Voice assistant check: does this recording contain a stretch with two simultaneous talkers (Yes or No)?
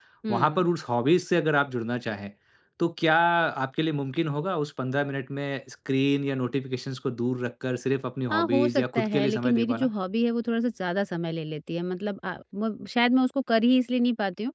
Yes